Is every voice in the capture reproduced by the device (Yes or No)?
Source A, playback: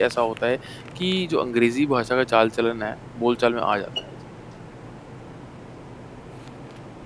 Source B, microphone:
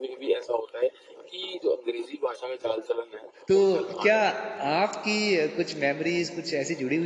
No